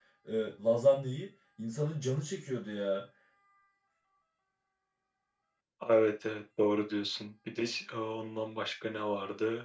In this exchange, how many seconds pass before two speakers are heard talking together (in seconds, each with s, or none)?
none